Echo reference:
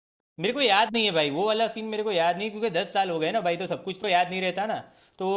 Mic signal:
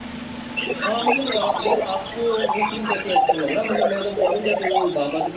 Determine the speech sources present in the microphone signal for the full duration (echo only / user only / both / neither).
both